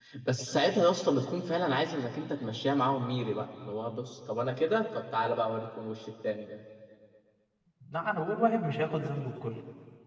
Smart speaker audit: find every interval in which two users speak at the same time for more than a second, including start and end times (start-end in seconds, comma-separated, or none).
none